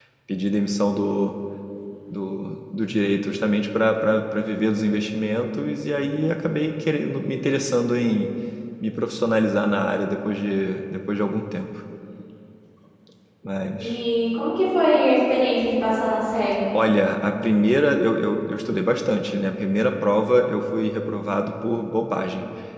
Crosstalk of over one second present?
No

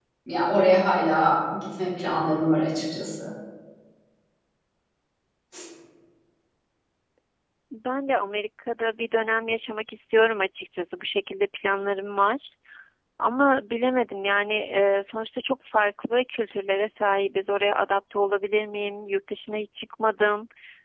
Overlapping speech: No

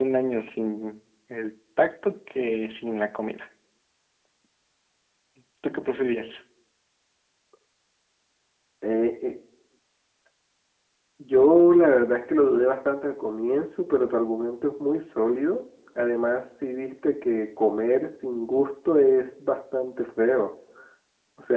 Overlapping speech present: No

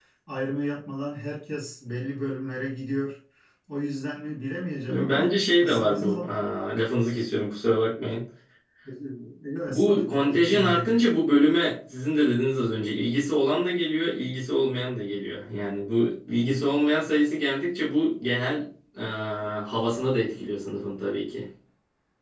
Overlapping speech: Yes, from 4.9 s

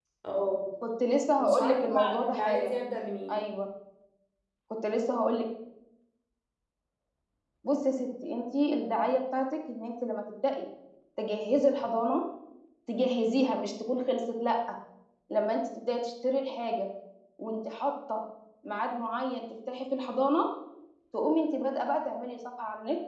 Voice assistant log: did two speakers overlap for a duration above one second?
Yes, from 1.4 s

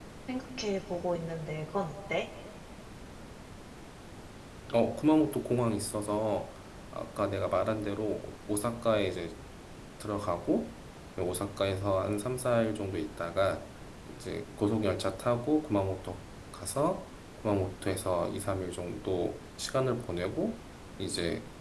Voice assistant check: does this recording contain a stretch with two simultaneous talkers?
No

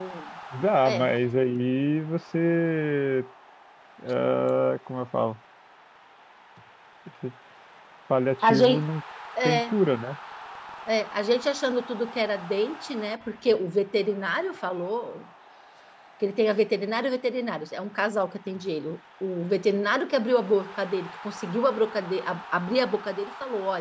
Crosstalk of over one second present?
No

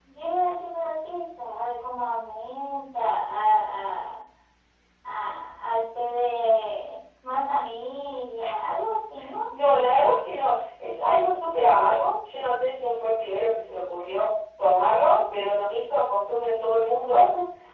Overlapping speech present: No

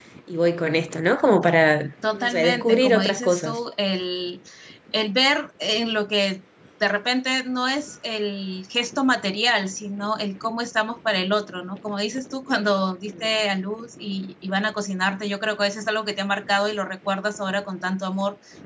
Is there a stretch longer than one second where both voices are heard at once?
Yes, from 2.0 s

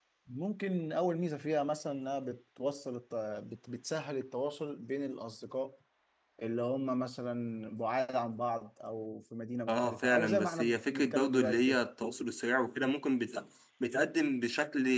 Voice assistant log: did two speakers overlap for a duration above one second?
Yes, from 9.7 s

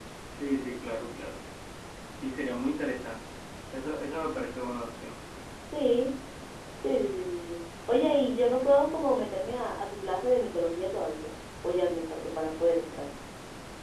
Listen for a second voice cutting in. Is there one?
No

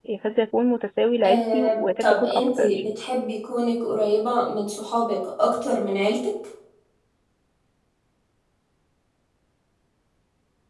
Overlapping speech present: Yes, from 1.2 s

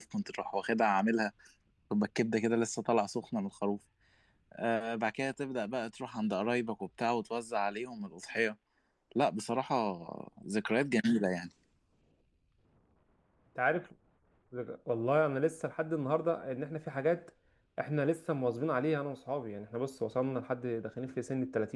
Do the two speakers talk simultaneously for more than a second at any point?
No

